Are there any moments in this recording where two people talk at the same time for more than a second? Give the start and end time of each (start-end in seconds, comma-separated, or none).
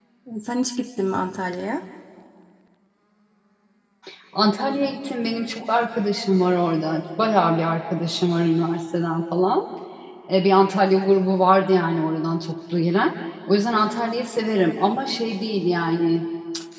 none